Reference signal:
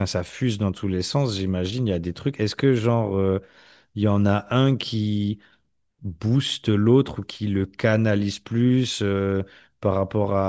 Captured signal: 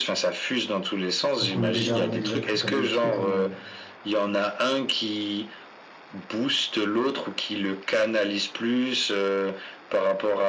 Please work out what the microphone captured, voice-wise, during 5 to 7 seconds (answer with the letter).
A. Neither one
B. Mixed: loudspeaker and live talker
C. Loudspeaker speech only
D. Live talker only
C